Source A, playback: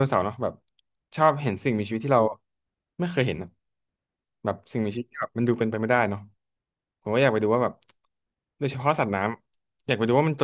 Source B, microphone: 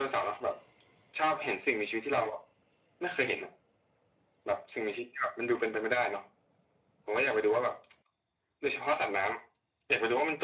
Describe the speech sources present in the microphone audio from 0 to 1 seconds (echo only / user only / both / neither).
echo only